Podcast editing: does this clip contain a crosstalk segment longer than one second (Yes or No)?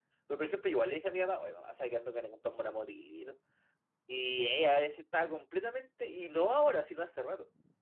No